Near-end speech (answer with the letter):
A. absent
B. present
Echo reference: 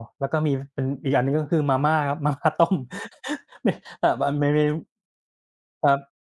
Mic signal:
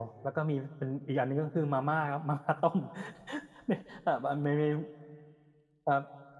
A